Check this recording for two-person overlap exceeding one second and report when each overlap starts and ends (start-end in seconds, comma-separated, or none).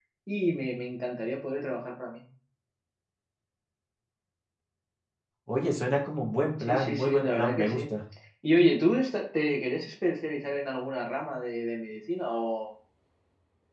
6.6-7.8